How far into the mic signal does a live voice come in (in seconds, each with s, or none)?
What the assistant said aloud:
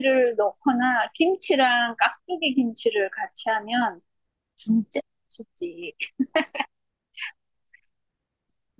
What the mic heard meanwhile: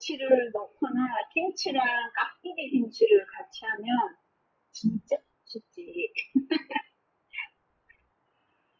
none